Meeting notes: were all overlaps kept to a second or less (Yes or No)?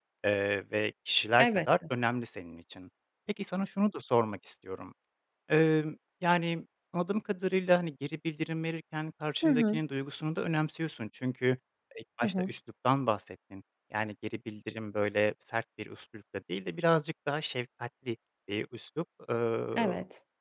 Yes